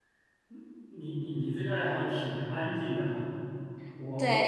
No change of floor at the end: No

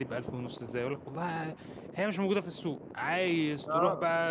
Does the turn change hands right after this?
No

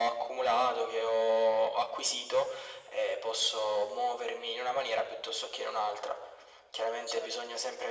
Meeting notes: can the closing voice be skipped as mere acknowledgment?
Yes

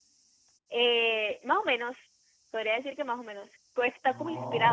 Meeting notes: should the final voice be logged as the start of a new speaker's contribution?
No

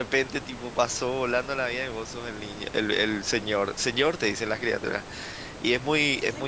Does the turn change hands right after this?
No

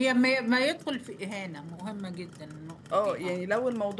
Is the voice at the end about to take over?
Yes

